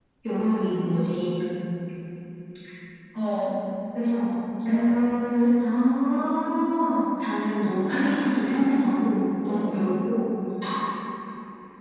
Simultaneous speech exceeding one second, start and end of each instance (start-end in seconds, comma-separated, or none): none